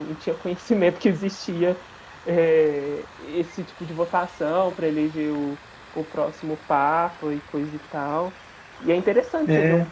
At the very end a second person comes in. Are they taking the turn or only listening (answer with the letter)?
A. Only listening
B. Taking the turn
A